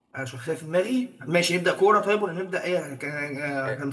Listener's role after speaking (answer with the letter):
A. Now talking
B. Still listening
A